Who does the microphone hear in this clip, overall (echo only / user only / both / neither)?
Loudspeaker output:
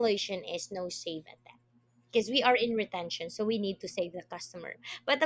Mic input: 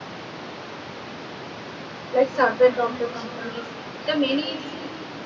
user only